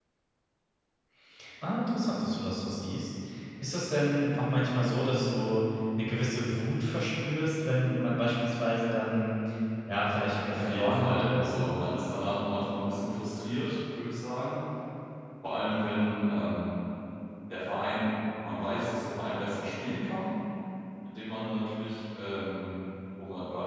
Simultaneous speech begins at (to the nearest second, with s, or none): 11 s